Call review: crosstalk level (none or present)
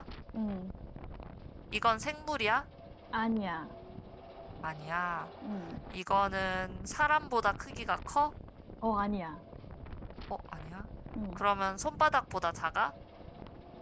none